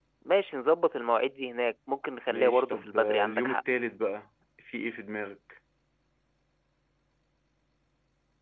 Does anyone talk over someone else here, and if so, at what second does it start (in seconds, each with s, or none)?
2.3 s